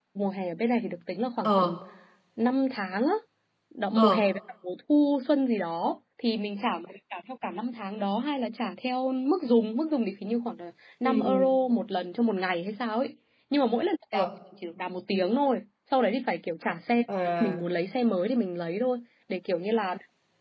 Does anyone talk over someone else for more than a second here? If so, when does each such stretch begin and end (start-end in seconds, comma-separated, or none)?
none